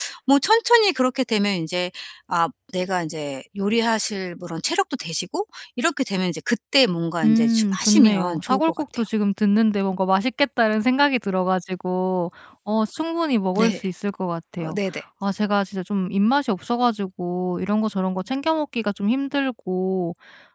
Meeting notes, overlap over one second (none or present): present